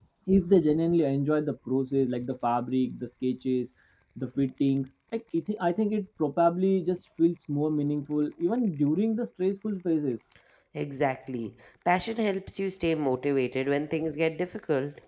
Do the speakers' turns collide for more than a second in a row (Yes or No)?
No